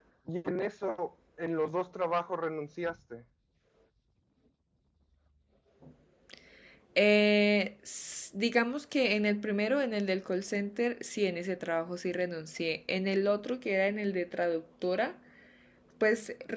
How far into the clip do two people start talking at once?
none

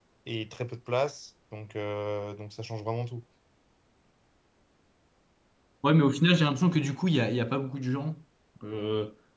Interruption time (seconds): none

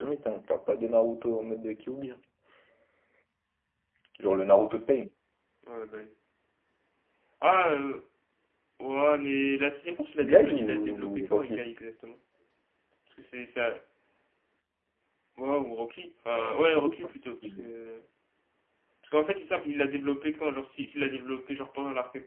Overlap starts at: 10.3 s

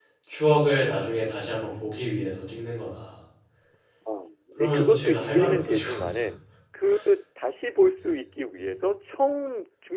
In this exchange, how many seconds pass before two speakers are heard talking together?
4.6 s

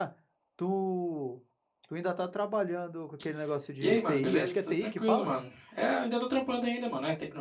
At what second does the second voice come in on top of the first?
3.8 s

